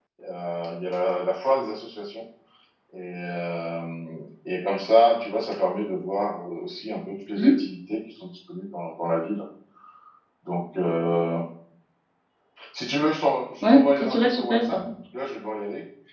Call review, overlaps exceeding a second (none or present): present